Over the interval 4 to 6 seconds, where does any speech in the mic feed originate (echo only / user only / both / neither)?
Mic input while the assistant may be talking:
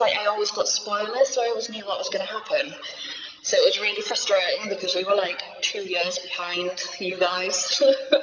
echo only